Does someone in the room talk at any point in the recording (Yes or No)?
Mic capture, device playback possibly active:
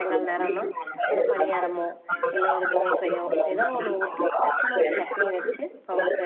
Yes